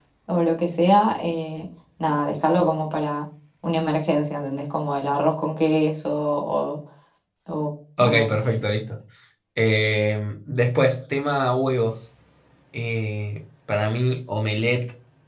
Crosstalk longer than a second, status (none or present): none